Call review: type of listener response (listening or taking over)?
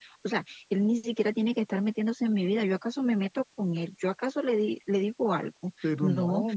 taking over